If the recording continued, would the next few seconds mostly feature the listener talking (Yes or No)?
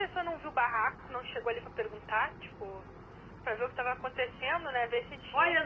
Yes